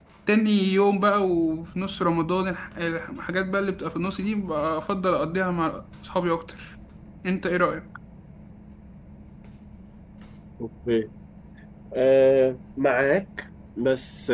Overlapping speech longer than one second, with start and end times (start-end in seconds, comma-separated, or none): none